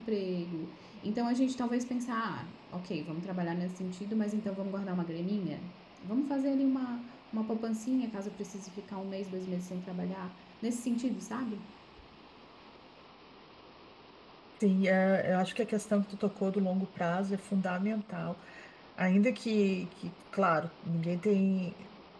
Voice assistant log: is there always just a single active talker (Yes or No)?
Yes